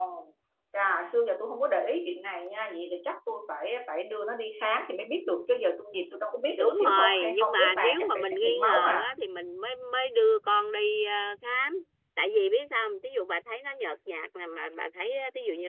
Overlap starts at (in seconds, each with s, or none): 6.6 s